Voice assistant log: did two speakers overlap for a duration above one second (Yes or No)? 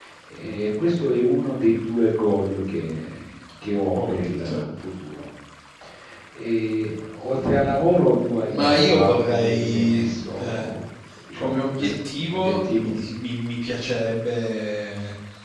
Yes